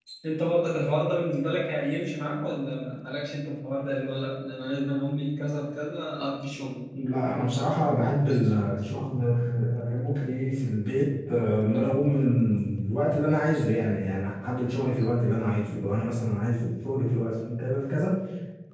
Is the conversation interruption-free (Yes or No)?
Yes